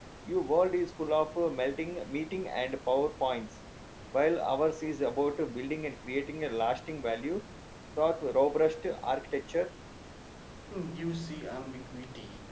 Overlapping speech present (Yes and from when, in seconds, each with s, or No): No